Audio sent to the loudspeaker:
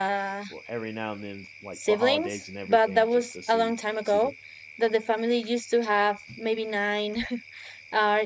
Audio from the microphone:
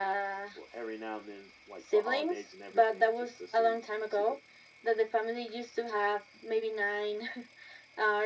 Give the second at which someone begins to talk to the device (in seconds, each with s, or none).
none